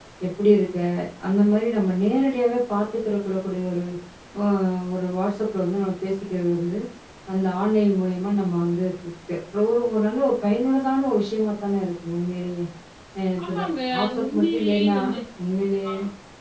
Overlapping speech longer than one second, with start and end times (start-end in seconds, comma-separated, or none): 13.4-15.0